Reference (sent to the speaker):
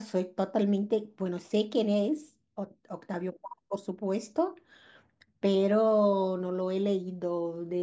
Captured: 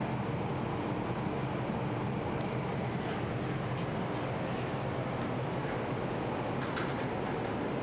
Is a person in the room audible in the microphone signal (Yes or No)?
No